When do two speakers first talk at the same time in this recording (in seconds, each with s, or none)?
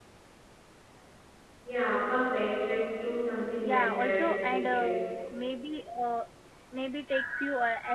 3.6 s